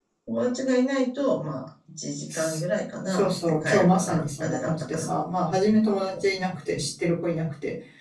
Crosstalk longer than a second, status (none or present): present